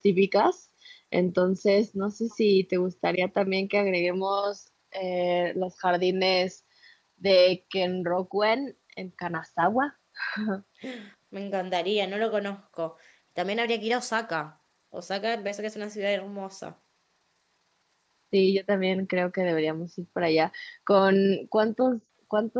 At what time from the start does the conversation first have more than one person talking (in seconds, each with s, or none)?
none